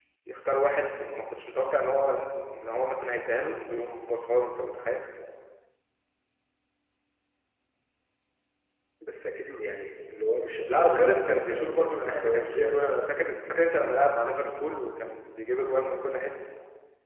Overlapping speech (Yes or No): Yes